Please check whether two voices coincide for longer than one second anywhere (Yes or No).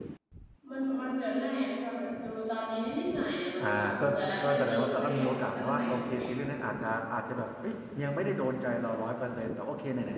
Yes